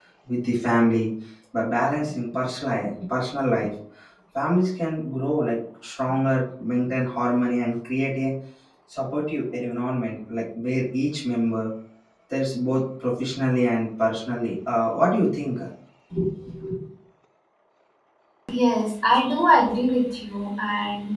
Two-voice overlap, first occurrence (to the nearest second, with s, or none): none